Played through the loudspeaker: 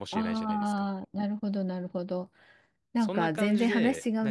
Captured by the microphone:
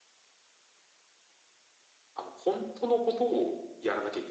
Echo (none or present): none